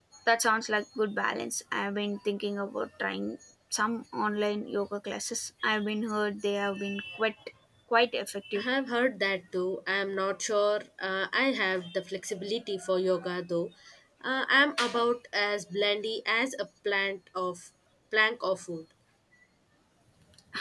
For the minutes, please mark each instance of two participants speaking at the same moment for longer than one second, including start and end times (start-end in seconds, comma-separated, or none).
none